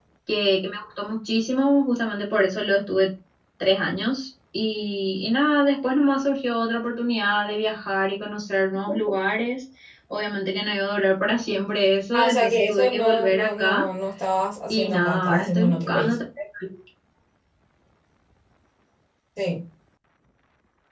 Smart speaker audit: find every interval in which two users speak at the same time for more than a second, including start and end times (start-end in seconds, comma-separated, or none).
12.1-13.8, 14.7-16.2